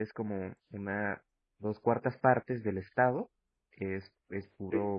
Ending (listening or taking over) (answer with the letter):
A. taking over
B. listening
B